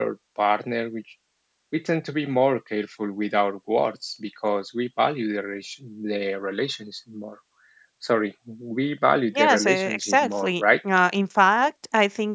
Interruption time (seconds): 9 s

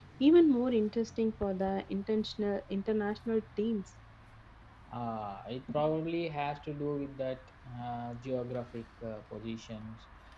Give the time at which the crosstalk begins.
none

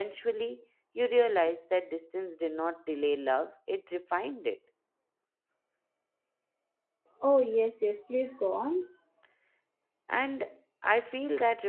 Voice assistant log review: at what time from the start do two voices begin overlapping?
none

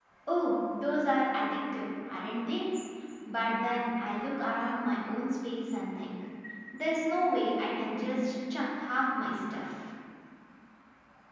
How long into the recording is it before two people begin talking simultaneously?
none

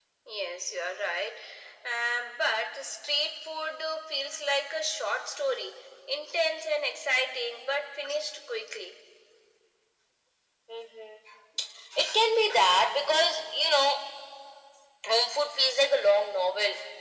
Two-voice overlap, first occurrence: none

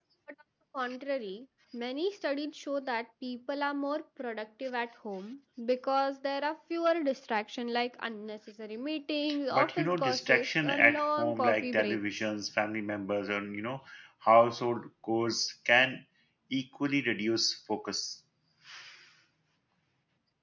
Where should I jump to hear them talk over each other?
10 s

